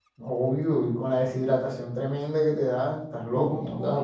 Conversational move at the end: taking over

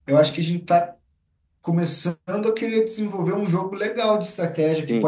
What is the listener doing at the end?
taking over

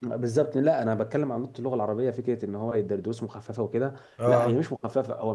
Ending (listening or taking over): listening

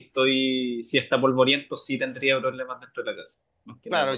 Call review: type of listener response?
taking over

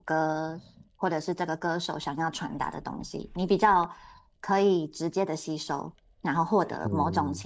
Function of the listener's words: listening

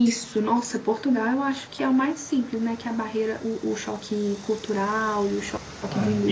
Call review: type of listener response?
taking over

